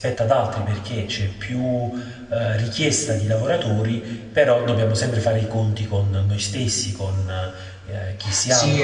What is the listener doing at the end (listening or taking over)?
taking over